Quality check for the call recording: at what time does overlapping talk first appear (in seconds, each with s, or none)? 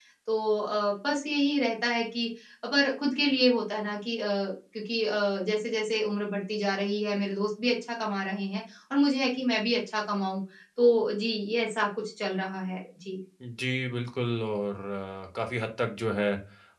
none